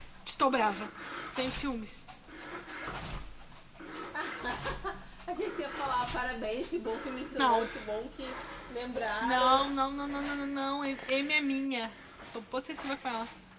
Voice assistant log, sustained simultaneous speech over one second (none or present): none